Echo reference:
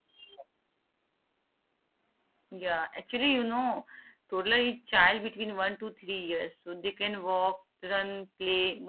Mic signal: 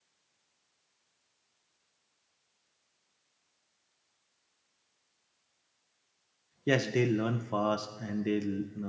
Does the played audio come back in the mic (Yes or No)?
No